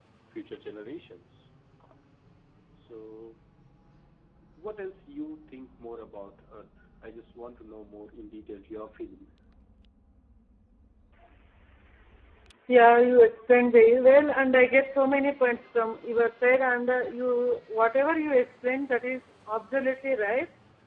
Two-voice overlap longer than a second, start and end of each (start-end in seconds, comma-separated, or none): none